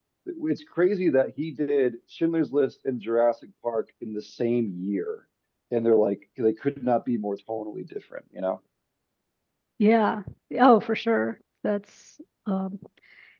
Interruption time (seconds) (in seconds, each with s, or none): none